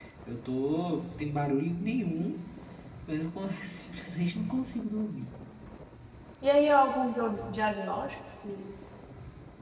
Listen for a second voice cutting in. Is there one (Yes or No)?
No